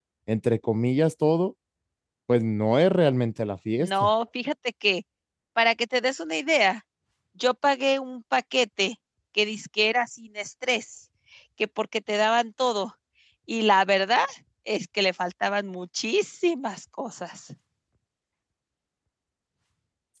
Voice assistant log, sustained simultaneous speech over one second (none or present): none